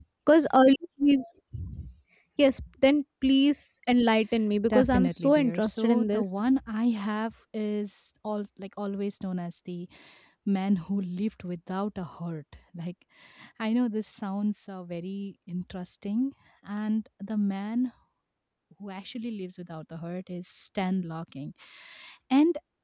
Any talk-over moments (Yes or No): Yes